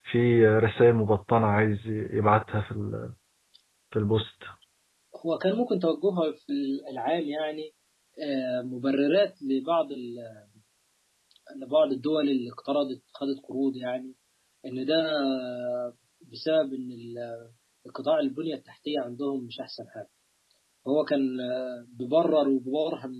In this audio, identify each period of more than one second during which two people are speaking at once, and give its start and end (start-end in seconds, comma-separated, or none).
none